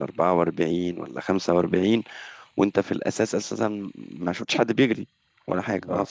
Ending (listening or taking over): listening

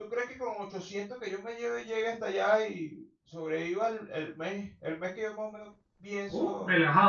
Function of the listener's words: taking over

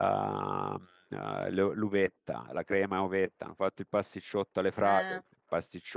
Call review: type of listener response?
listening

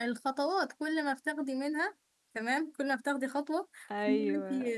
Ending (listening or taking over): listening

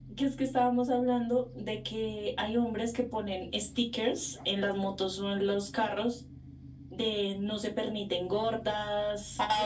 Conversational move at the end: taking over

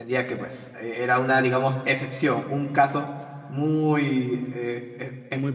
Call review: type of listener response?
listening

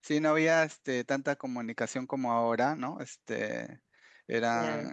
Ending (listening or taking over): listening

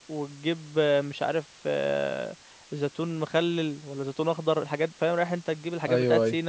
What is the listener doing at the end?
listening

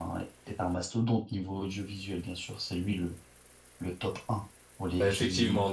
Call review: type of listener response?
taking over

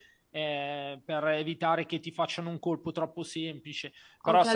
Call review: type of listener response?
taking over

